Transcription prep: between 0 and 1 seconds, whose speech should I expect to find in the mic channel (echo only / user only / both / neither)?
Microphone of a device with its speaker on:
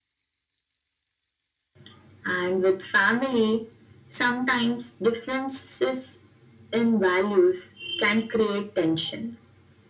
neither